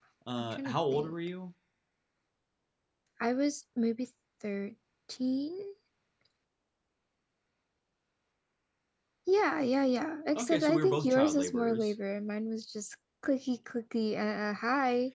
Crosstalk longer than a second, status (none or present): present